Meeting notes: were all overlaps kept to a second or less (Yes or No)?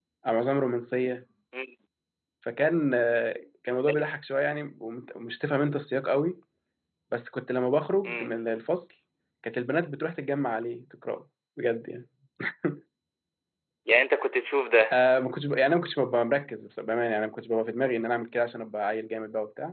Yes